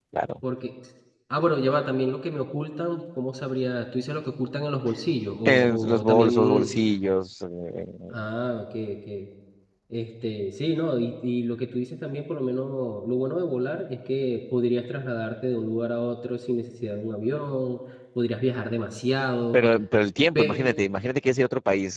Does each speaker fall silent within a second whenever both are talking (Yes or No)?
No